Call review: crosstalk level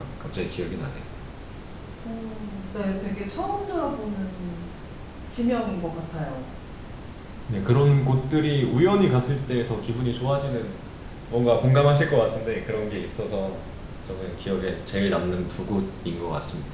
none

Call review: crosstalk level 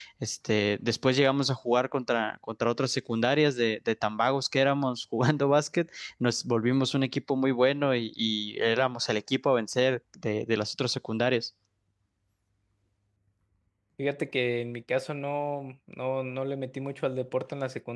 none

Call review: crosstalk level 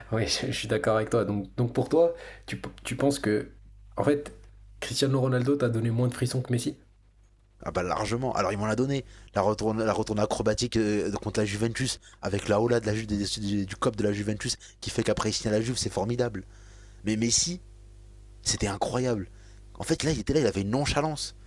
none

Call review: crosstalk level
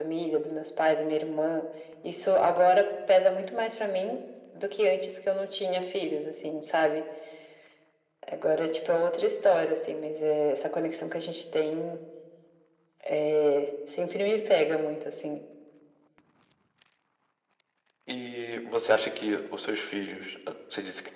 none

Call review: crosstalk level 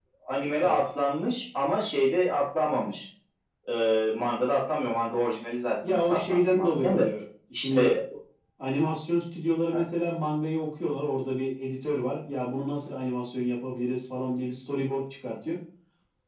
present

